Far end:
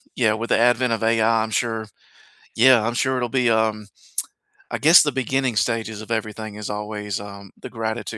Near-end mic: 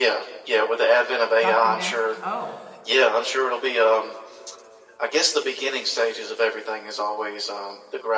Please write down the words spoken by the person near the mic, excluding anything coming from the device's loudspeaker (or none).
Document Oh,